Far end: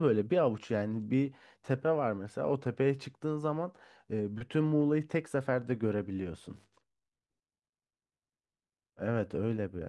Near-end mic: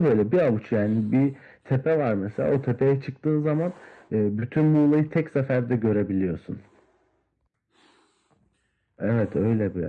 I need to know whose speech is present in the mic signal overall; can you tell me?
echo only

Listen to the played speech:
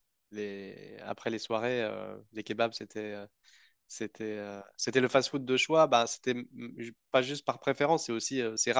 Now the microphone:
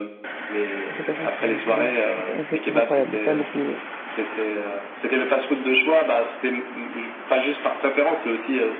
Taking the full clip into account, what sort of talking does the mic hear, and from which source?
both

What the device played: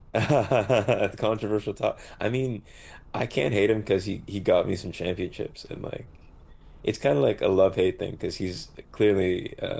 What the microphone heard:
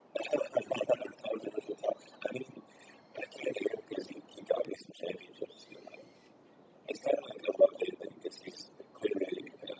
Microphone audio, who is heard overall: echo only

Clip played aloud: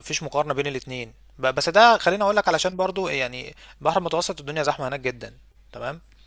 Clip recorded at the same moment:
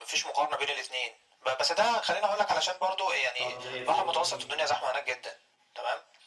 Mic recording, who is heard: both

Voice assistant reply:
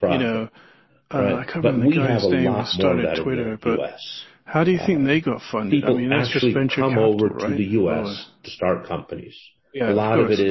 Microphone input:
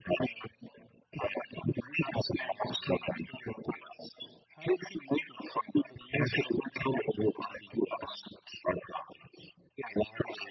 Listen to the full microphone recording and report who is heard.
echo only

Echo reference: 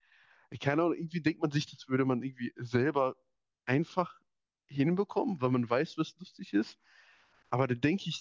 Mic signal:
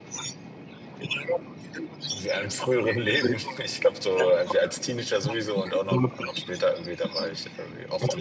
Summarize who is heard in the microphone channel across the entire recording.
both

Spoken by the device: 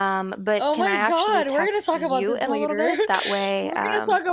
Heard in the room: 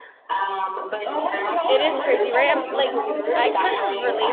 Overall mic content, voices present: both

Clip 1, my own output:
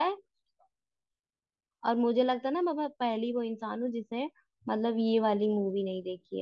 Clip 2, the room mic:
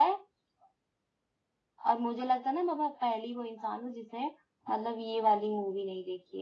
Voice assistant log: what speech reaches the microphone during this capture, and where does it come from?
echo only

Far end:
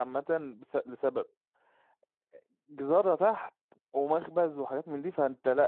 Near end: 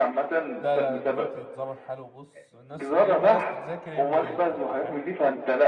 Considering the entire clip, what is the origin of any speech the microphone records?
both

